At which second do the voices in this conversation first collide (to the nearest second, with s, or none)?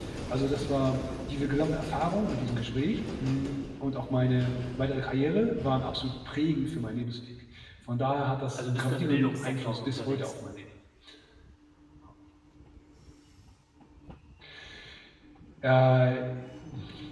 9 s